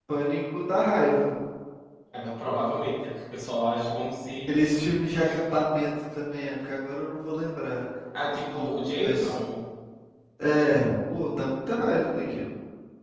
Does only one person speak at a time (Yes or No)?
No